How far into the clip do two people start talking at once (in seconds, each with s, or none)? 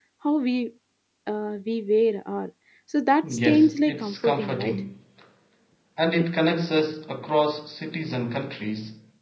3.2 s